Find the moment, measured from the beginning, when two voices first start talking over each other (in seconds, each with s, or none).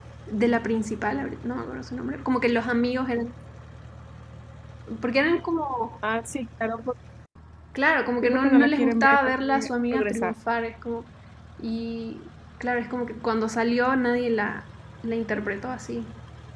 8.2 s